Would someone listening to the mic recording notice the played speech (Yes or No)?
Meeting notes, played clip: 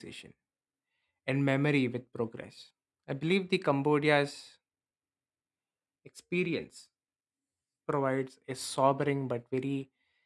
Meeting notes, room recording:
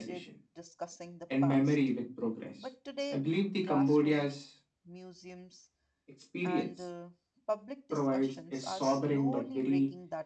Yes